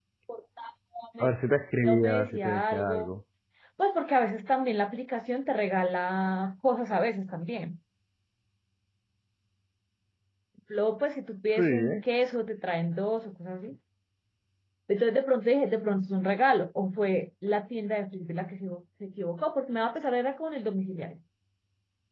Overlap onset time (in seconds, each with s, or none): 1.9 s